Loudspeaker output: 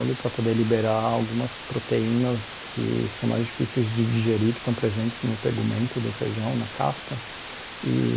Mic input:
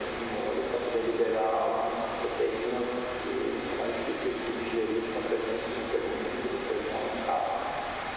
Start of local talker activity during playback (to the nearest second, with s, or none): none